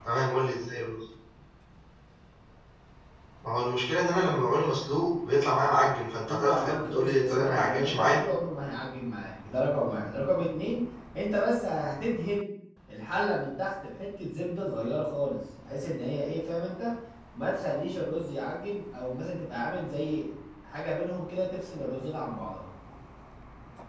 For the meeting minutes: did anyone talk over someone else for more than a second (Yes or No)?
Yes